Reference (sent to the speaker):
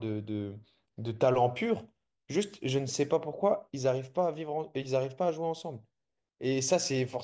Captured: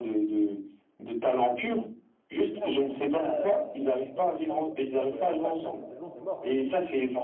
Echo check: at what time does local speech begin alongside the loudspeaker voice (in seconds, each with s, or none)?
2.5 s